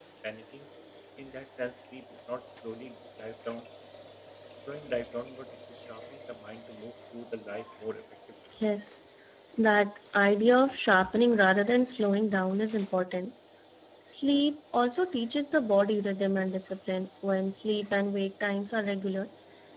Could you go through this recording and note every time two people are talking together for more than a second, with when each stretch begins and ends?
none

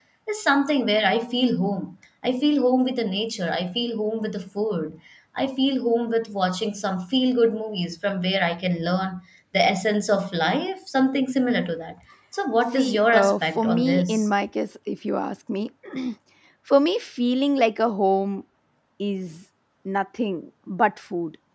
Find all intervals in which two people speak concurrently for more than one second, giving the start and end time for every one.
12.7-14.3

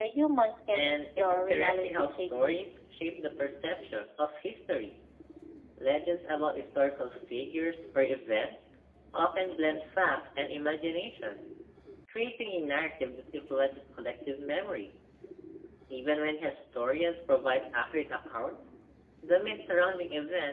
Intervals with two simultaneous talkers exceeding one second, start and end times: 0.7-2.6

